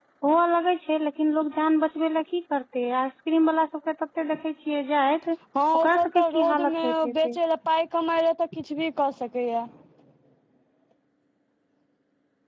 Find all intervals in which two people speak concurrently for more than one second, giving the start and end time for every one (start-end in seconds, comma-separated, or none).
5.7-7.4